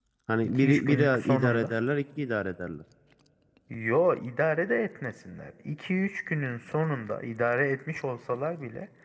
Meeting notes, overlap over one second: present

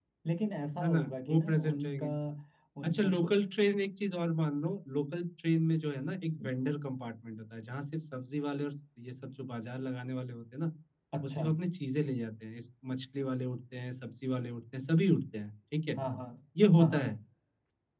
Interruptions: present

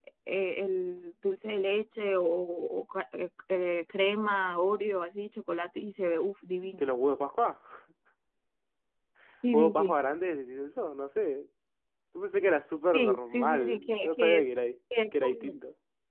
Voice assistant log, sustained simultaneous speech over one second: present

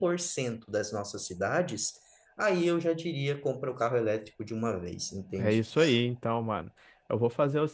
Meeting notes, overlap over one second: none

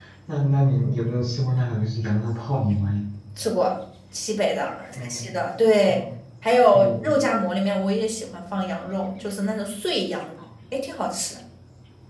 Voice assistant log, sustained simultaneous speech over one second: none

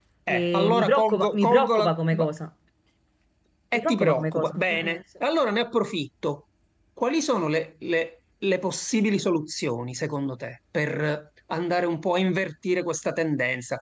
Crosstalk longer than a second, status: present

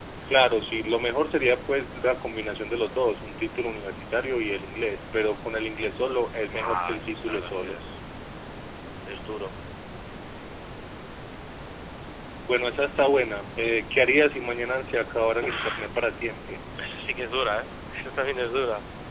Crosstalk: present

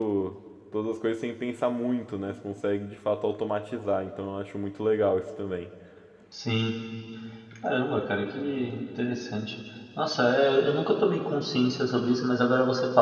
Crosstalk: none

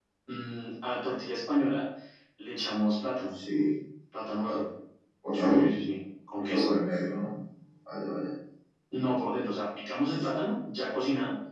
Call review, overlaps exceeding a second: none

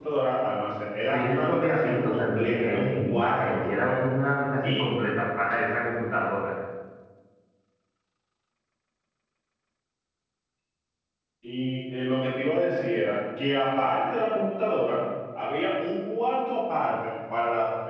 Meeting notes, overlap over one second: present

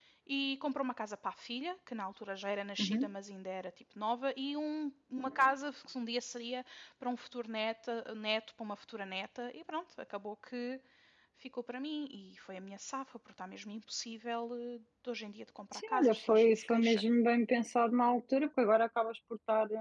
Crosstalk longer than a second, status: present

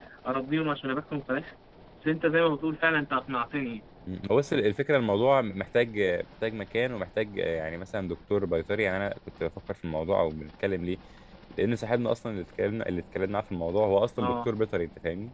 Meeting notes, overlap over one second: none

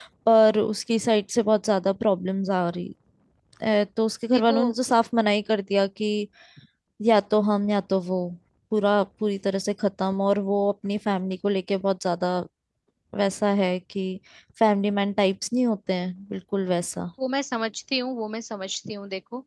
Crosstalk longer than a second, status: none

